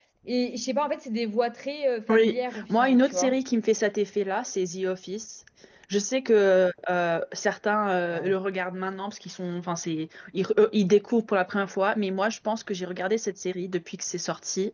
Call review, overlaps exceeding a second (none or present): present